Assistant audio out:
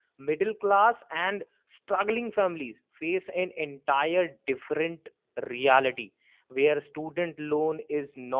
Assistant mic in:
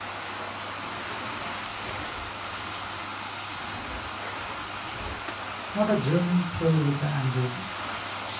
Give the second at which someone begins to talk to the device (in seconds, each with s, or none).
5.7 s